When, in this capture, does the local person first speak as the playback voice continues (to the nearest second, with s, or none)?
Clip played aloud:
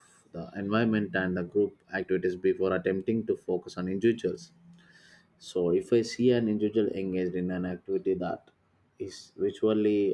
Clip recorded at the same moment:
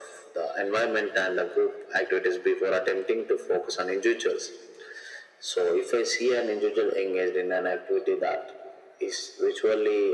none